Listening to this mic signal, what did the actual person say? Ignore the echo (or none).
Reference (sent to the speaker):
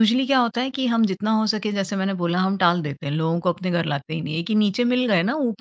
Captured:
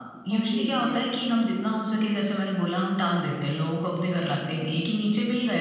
ओके, वेरी